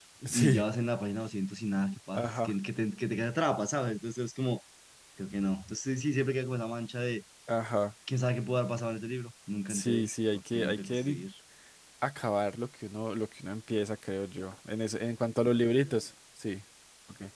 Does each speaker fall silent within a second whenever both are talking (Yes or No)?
No